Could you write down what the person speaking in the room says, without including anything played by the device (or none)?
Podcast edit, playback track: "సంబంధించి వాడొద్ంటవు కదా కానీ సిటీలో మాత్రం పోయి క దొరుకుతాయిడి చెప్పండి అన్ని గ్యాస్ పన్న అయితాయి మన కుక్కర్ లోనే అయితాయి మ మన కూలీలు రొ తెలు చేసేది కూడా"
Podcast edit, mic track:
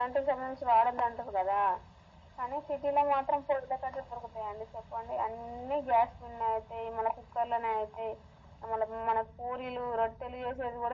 none